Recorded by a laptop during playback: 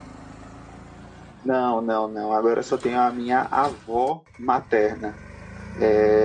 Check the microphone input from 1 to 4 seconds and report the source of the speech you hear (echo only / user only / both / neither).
echo only